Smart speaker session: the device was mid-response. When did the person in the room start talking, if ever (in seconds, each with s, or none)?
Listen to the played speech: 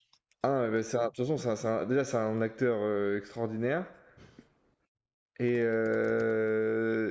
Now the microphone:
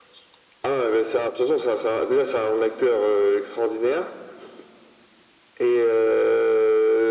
none